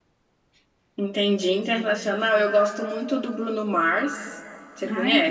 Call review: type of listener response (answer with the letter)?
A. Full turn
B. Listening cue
A